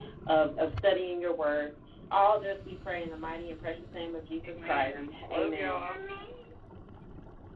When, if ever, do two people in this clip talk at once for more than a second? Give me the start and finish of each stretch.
4.4-5.9

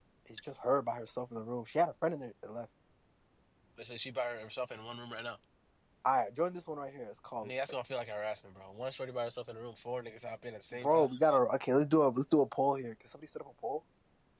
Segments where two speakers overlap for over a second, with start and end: none

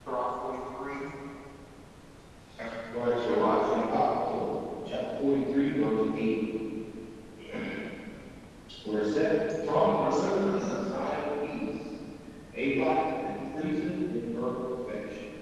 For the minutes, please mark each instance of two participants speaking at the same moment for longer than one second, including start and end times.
9.8-11.2

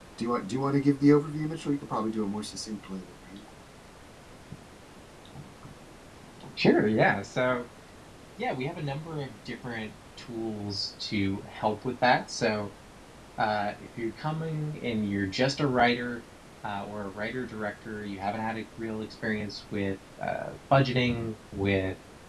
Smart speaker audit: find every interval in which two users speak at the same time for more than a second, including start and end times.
none

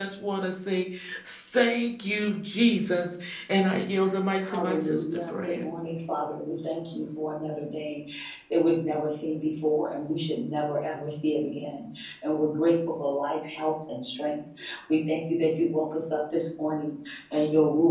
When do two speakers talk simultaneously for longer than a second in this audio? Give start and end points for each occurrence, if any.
4.5-5.7

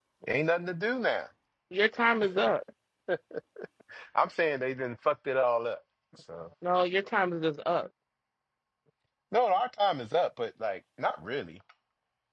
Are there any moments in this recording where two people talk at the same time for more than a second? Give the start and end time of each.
none

